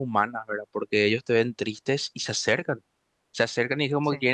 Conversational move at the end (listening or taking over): listening